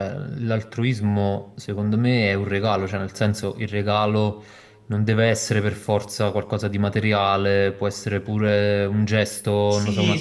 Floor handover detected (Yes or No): Yes